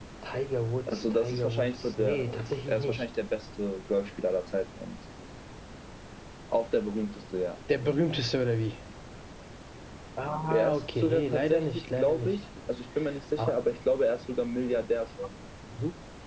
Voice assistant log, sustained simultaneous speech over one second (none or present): present